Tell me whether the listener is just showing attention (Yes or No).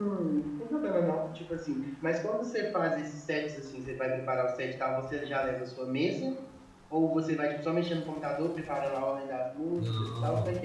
No